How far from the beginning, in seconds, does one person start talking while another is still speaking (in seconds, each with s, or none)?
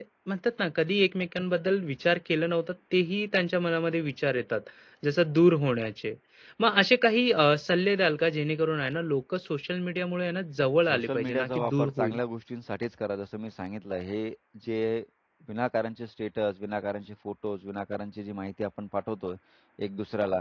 10.9 s